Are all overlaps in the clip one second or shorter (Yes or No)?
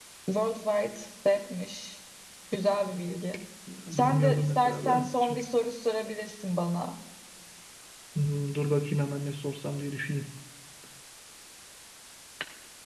No